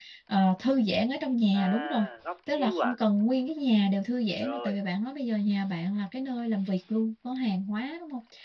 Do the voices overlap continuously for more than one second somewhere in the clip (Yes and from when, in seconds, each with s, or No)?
No